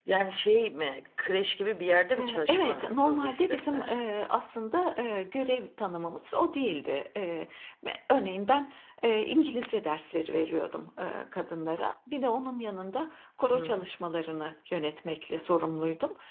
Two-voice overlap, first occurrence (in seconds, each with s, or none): 2.2 s